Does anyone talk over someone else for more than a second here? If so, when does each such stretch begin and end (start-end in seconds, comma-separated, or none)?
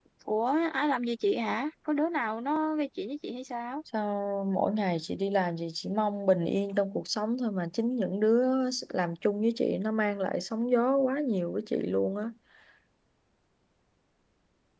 none